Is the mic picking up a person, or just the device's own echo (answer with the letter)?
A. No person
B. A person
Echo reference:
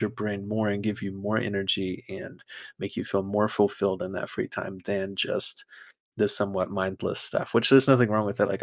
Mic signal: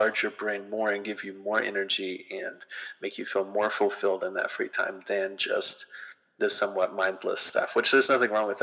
A